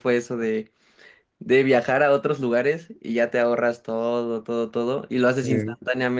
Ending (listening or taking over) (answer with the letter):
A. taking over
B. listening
B